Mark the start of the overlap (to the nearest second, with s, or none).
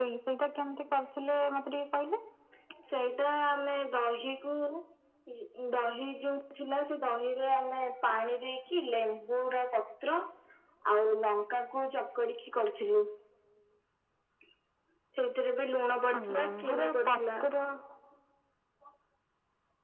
16 s